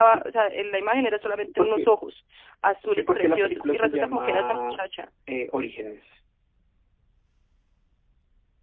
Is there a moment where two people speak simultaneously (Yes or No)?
Yes